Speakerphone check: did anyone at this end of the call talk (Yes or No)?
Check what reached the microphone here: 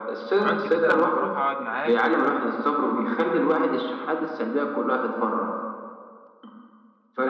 Yes